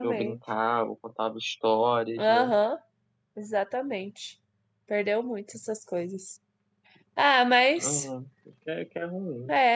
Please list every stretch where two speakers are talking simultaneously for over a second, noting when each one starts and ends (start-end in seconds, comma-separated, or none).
none